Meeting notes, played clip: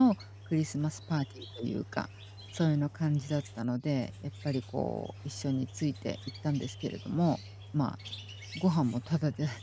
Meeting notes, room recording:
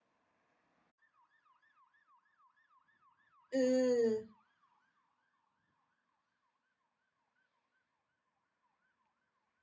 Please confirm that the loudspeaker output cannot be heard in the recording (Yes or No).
Yes